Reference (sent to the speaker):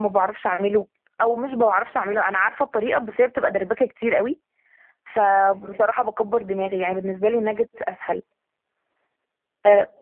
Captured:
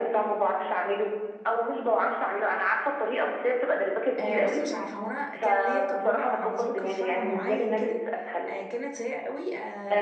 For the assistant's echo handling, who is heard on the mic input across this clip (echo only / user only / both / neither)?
both